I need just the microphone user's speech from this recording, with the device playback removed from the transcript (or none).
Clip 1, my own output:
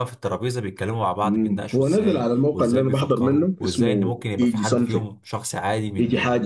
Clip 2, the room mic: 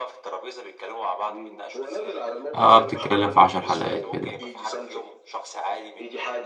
اه بتتكلم في عشر حلقات كده يعني.